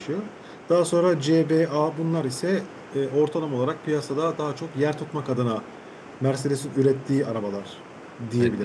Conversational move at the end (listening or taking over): taking over